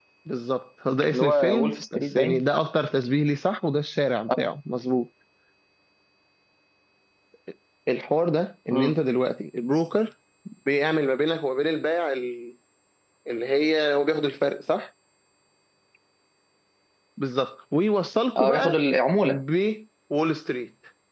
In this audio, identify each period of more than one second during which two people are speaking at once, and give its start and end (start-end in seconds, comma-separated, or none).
1.1-2.4